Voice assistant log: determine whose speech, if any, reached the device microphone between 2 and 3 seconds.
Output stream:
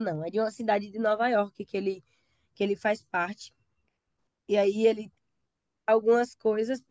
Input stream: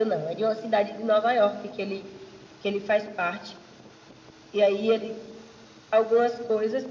echo only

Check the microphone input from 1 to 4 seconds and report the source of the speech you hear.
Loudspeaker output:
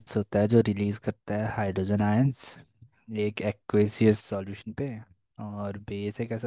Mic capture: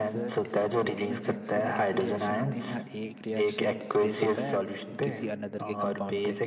both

